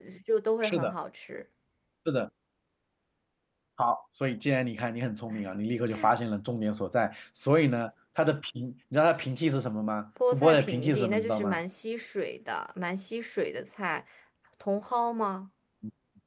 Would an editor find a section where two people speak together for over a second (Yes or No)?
Yes